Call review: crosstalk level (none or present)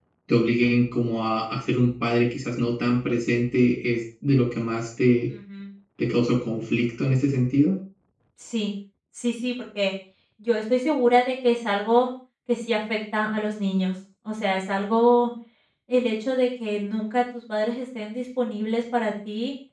none